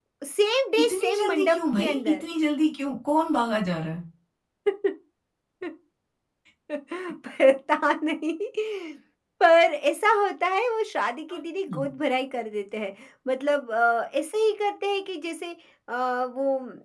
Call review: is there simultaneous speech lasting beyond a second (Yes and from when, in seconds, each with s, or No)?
Yes, from 0.8 s